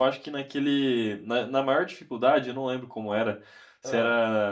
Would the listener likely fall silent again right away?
Yes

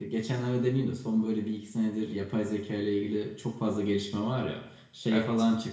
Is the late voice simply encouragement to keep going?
Yes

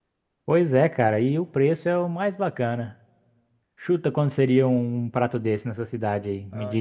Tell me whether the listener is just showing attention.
No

